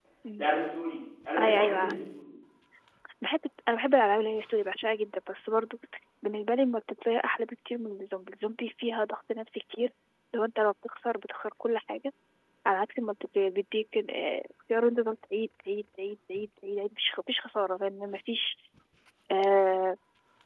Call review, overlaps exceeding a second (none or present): none